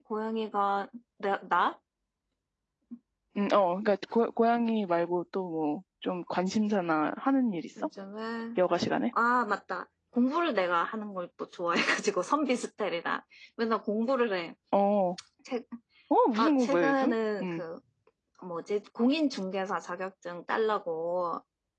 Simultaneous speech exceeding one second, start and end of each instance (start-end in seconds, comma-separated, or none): 16.4-17.6